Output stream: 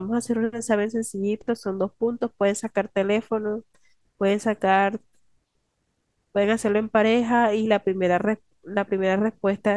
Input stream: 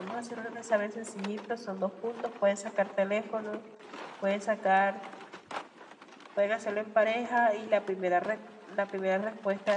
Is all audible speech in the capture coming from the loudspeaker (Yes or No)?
Yes